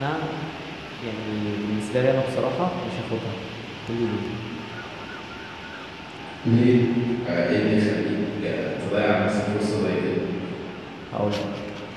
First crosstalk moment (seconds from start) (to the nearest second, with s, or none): none